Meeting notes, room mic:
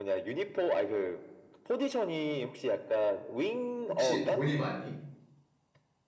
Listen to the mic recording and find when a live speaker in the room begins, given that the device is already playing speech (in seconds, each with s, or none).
3.9 s